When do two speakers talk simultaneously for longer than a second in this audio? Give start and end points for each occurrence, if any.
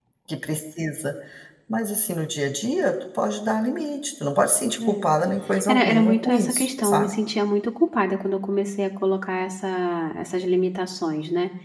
5.7-7.2

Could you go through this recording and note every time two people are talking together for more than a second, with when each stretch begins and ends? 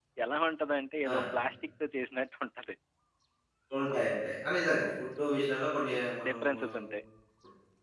none

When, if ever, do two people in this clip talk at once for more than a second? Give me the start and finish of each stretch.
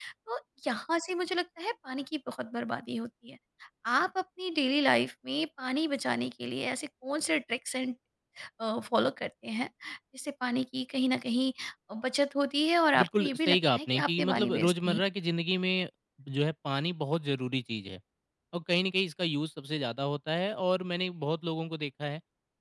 13.0-15.0

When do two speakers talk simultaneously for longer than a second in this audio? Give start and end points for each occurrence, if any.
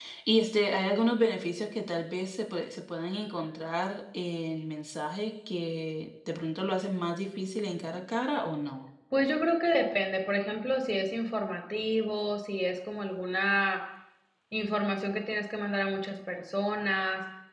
none

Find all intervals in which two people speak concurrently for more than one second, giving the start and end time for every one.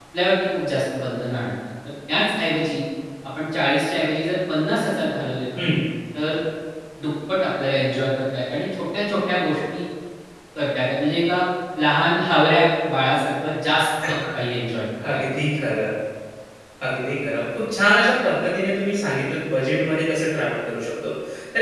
none

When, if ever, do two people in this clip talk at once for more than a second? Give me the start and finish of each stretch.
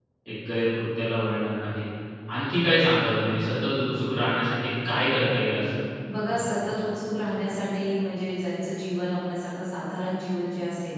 none

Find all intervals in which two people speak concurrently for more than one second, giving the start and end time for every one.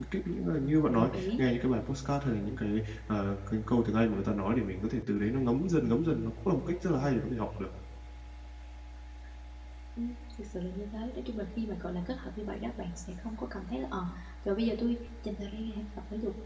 none

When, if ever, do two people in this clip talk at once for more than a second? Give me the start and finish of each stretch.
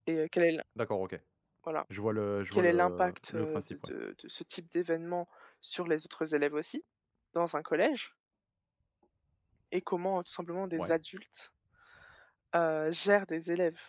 2.5-3.9

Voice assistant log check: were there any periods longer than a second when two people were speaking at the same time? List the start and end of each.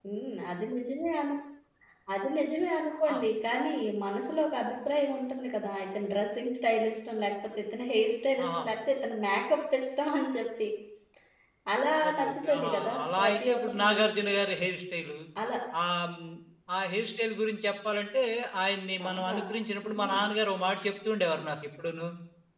12.1-14.3

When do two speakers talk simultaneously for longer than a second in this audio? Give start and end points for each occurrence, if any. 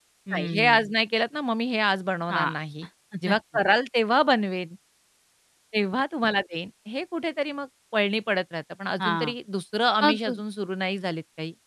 none

